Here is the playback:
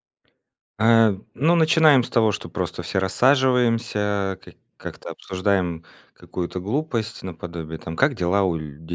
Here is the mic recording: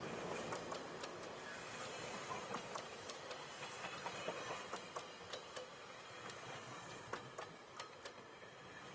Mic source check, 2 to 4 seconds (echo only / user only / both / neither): neither